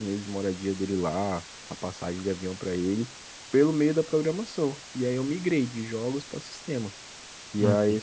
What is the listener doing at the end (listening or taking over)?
listening